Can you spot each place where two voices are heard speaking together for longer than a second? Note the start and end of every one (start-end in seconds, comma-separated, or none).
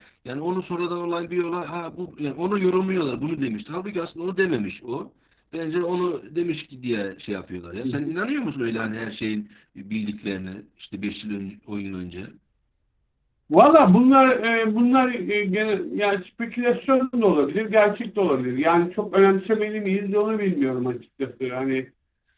none